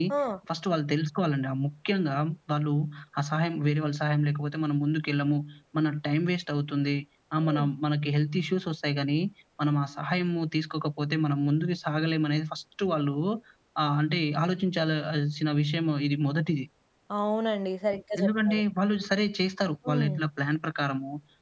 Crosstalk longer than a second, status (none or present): none